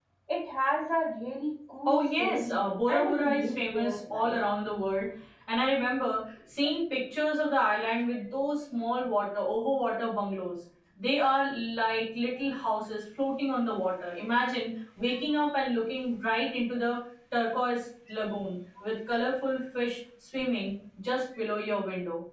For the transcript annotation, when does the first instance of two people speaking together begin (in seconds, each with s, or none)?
1.8 s